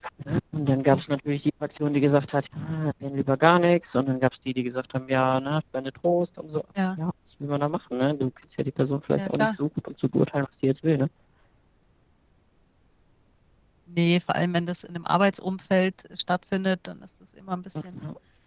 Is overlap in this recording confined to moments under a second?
Yes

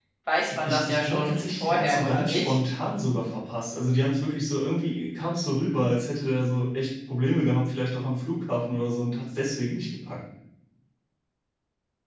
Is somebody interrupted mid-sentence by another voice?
Yes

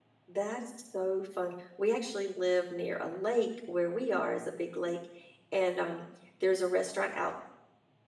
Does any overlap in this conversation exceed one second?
No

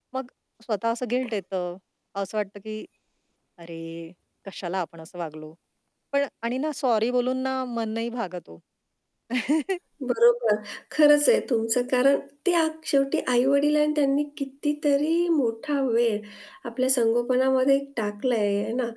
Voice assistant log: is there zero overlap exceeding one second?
Yes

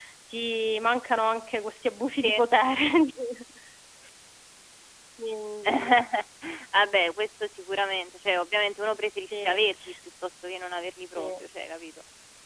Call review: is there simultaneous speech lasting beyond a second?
No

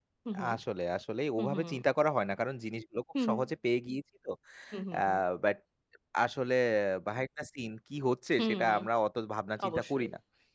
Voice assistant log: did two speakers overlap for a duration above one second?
No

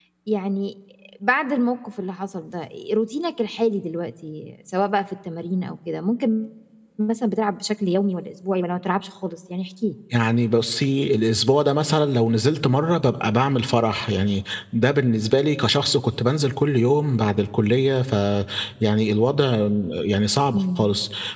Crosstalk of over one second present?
No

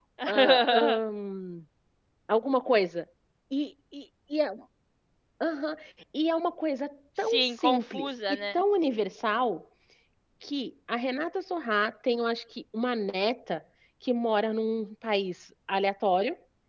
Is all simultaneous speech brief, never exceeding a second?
No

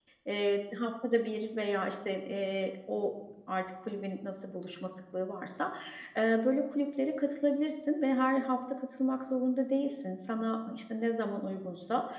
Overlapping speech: No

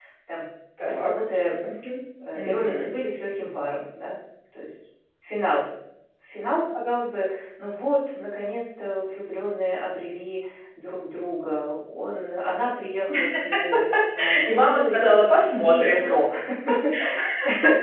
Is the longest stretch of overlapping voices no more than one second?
No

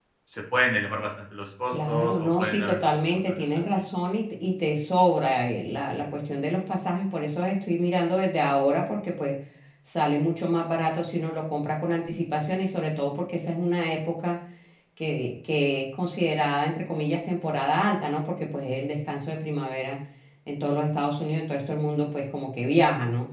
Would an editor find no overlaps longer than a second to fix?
No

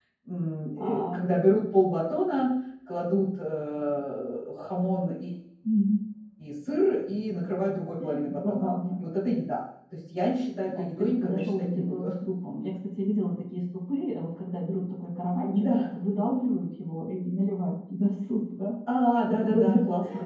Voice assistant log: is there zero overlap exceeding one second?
No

